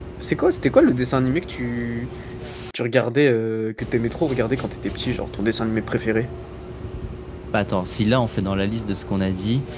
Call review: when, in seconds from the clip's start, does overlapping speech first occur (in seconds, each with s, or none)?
none